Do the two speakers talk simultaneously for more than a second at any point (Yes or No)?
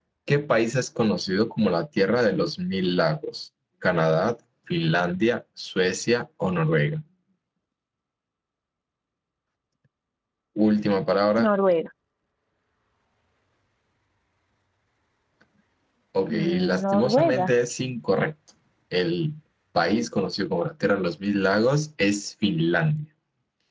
Yes